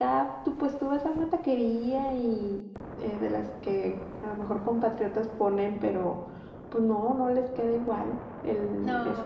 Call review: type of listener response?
taking over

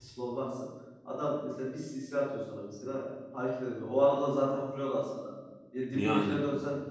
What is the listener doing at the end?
listening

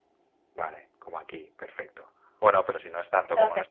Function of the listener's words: taking over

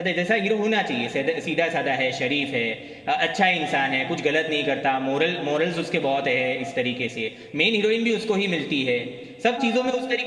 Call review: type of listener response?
listening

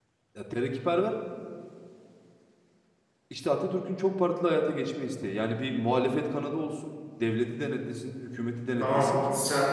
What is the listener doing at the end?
taking over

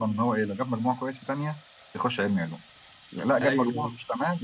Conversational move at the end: listening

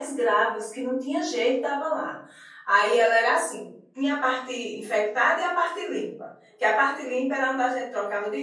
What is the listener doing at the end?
listening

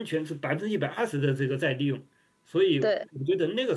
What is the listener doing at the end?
listening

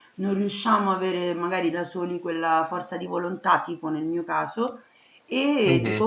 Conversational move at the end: listening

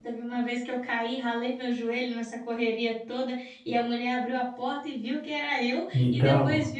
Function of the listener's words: listening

